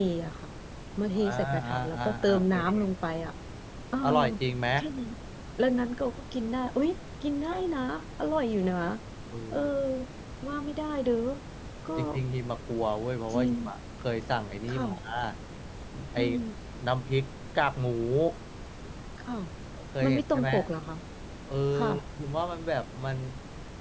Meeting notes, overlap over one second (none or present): present